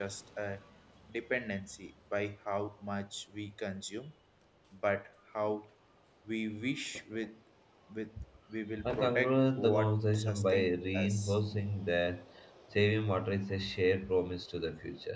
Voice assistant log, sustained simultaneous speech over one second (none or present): present